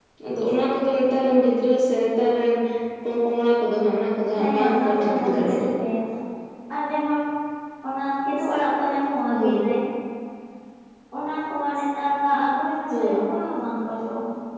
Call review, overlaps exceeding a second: present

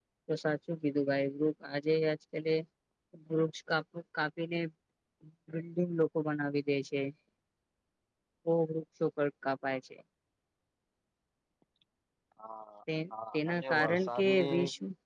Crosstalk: present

